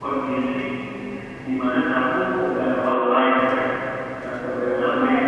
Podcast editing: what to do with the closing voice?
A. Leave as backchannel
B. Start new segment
A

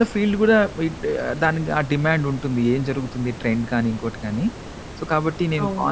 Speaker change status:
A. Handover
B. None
B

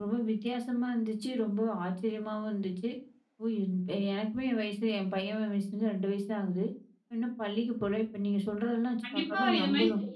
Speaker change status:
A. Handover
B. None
A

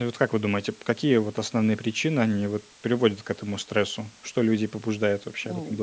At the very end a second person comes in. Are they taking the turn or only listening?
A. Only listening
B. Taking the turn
B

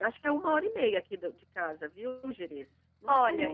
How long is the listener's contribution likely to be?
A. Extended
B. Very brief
A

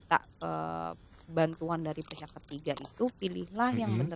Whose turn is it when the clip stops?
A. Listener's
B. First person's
B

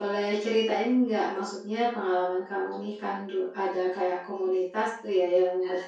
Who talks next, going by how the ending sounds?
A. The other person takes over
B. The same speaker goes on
B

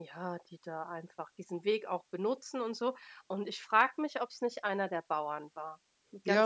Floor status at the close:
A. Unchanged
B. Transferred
B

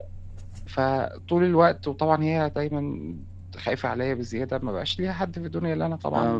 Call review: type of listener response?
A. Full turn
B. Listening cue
A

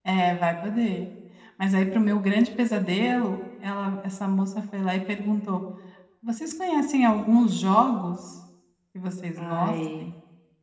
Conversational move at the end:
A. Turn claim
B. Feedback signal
B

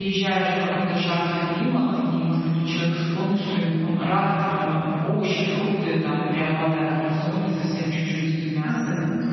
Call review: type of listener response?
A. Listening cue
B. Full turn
B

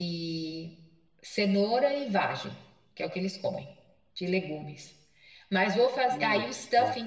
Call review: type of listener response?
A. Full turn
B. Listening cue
B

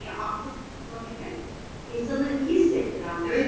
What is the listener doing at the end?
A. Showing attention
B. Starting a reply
B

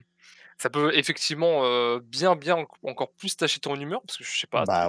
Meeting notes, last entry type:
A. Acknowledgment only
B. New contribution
A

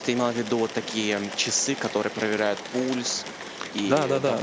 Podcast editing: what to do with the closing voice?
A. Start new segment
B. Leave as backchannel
A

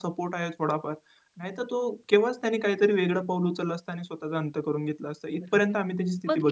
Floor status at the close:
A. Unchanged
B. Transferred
B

